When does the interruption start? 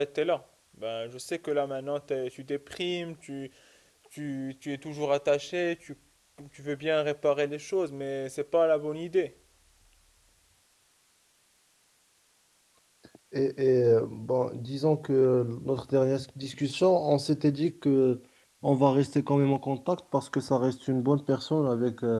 none

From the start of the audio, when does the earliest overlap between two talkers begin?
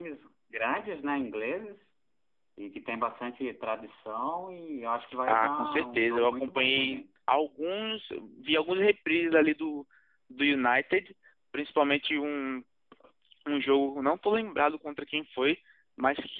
5 s

